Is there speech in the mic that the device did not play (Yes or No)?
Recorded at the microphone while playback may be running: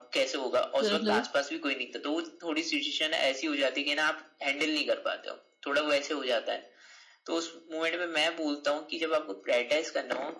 Yes